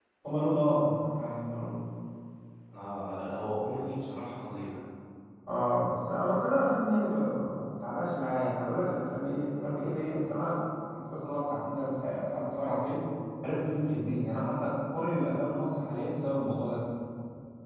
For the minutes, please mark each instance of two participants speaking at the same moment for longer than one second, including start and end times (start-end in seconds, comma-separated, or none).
none